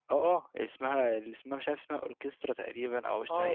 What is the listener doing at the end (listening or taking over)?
taking over